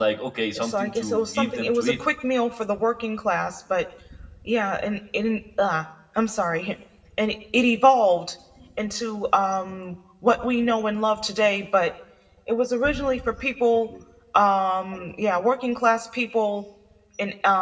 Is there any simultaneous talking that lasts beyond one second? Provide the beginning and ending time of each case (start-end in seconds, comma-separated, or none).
0.6-2.0